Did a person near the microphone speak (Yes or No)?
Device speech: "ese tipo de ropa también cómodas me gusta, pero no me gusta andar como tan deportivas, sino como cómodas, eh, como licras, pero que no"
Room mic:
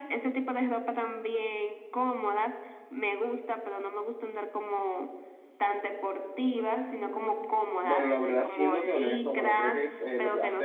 Yes